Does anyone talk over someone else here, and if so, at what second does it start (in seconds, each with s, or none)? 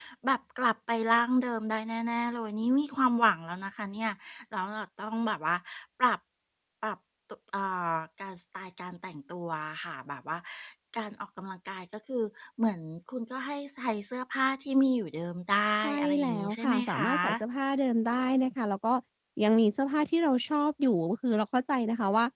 15.8 s